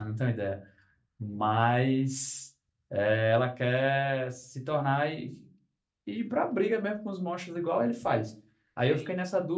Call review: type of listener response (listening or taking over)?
listening